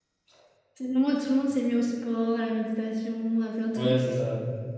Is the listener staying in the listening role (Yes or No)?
No